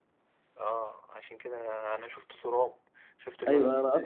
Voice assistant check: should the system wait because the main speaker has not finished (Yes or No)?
No